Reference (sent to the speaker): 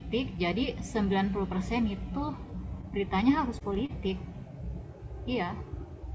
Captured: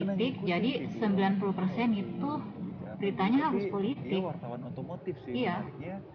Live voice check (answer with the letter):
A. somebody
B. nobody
A